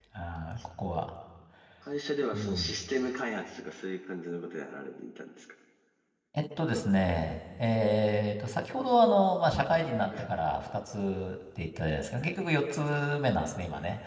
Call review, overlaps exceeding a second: none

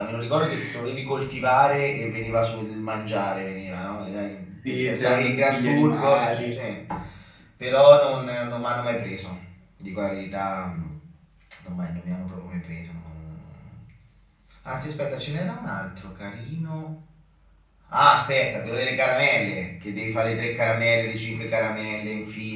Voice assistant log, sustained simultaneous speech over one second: present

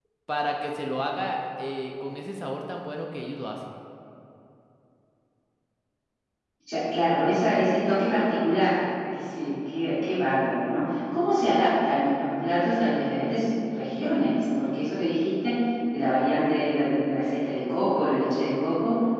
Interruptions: none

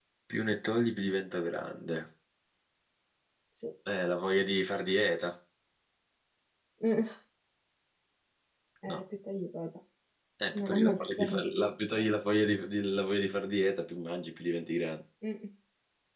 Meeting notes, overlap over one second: present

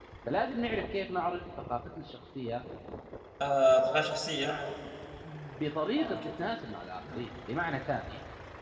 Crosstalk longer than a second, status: none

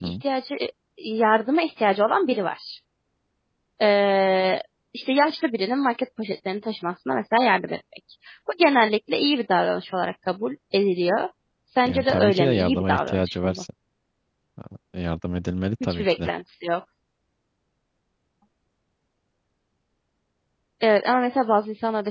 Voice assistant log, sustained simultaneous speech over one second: present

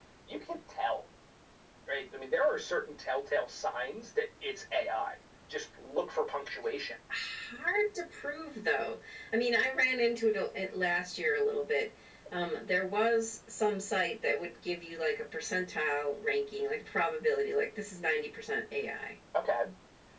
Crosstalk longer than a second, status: none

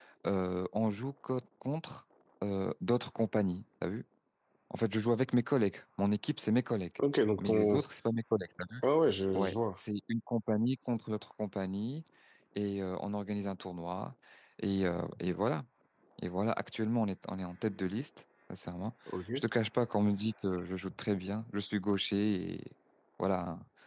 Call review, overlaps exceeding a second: none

